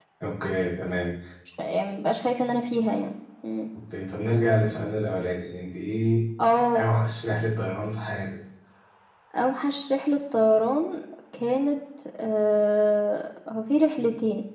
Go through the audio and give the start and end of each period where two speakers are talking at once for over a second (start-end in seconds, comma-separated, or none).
none